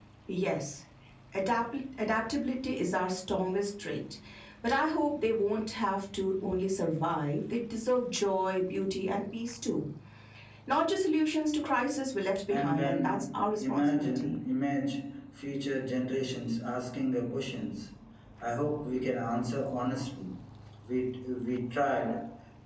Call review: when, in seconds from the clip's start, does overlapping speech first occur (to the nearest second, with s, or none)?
12 s